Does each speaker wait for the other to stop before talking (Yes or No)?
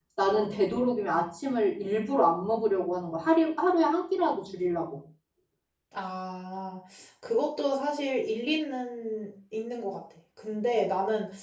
Yes